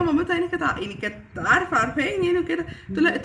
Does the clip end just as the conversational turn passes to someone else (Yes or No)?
No